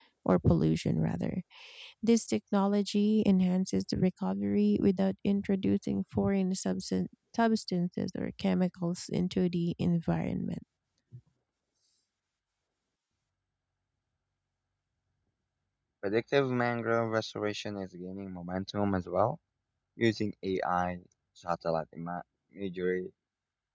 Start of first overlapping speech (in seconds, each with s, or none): none